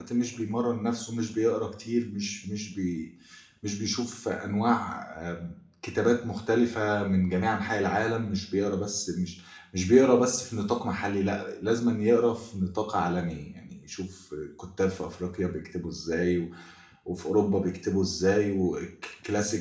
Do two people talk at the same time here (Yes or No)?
No